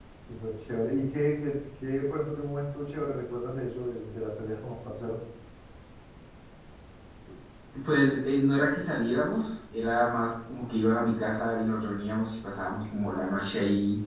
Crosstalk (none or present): none